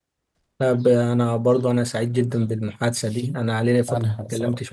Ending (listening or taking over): listening